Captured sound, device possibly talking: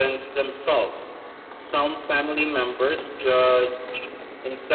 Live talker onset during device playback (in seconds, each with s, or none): none